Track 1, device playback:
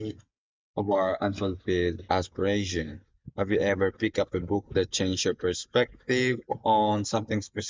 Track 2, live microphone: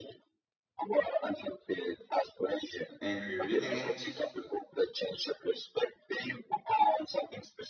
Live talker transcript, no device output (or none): angry reading it?